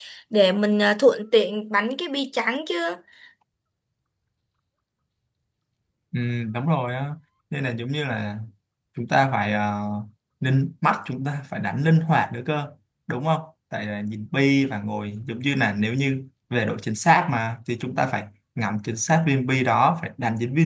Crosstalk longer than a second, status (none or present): none